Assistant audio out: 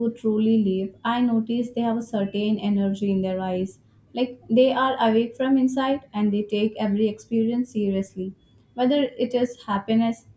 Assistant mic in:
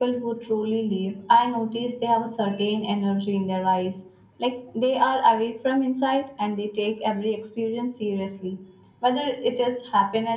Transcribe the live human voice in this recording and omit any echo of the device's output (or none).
none